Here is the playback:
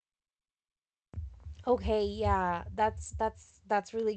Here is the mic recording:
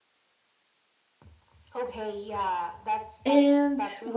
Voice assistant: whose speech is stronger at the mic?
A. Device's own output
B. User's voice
B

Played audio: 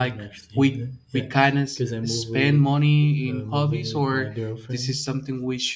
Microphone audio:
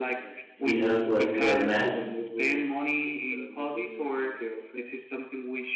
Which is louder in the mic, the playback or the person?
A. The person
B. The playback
A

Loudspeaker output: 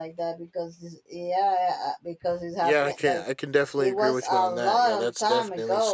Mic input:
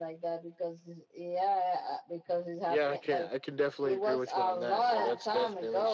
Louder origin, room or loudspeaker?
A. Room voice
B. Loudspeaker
B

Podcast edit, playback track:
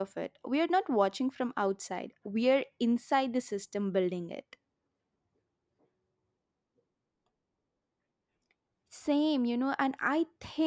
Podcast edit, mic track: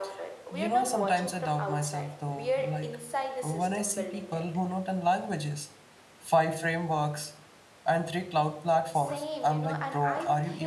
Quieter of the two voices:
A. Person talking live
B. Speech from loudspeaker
B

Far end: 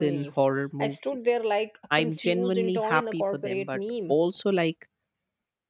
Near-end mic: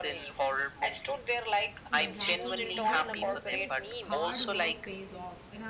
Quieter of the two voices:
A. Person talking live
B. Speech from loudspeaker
A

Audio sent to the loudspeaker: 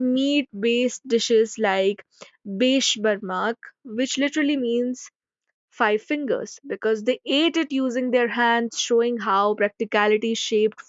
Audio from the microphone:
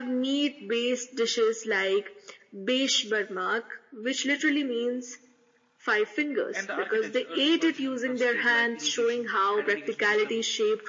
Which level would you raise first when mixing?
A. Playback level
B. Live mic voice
B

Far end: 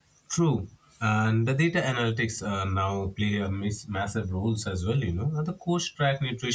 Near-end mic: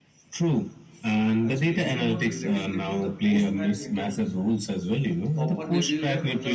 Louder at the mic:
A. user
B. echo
B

